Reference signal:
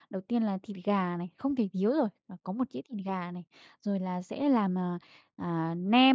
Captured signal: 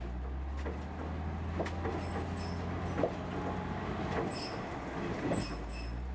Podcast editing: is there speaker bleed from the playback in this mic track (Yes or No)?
No